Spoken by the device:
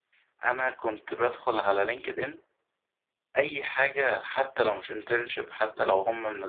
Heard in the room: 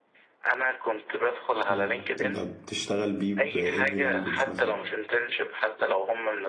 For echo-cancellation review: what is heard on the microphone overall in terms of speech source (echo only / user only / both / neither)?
both